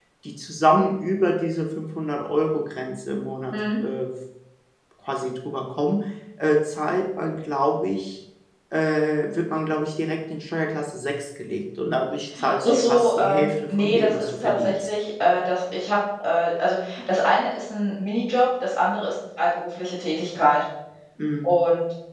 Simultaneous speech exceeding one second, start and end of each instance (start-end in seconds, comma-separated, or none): 12.7-14.9